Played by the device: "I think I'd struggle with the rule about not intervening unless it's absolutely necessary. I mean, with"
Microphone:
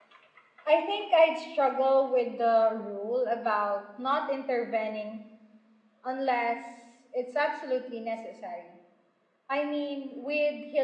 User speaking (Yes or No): No